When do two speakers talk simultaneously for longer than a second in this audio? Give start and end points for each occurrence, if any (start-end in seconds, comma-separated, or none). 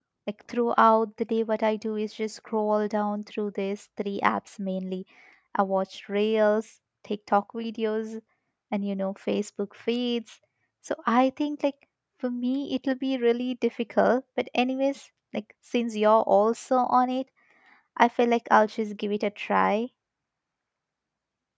none